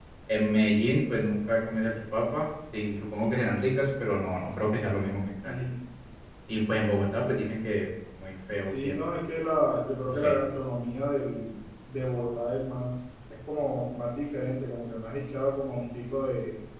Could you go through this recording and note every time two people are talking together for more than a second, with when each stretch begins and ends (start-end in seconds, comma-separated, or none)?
none